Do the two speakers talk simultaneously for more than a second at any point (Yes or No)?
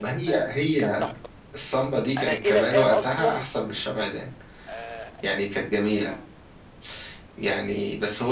Yes